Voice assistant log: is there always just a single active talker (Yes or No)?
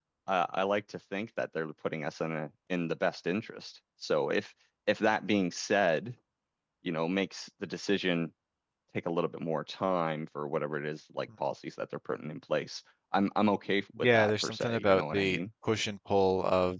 No